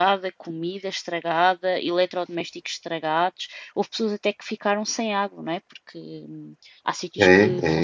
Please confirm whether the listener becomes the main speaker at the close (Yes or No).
Yes